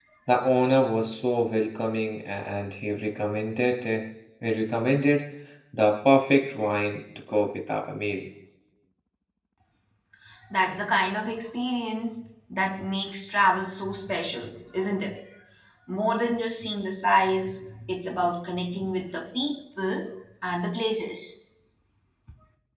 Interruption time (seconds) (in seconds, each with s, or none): none